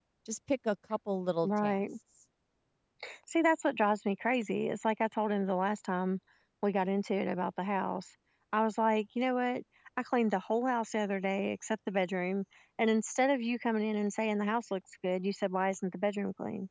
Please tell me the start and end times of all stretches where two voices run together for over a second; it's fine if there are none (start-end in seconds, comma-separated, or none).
none